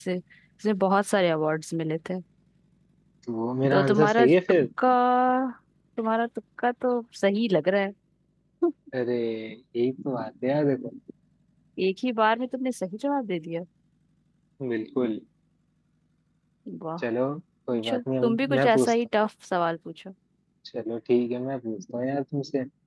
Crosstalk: present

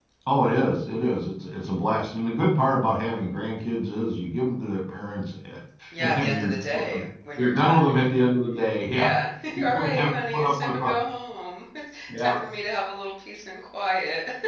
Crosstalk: present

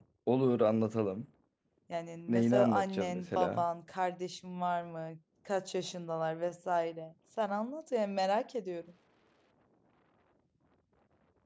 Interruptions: present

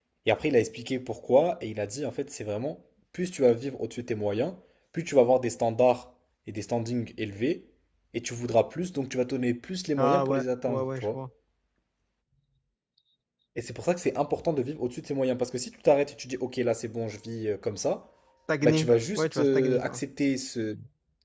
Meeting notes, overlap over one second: present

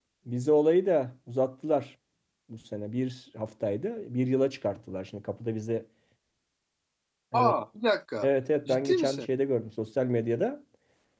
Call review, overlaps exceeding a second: none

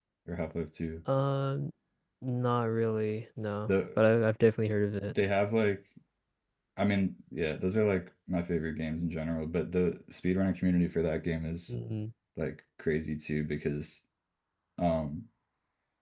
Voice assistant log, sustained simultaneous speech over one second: none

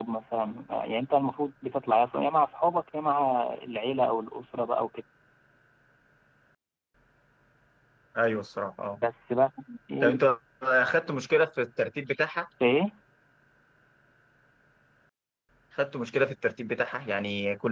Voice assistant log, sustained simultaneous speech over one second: none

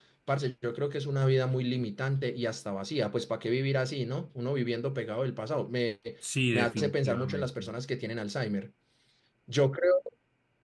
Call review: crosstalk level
present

